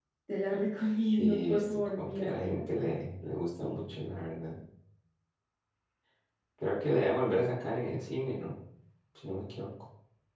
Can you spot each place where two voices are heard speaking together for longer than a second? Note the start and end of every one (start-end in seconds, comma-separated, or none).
1.2-2.7